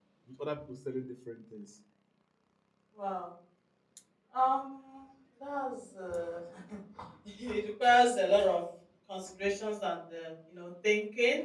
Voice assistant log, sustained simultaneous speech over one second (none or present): none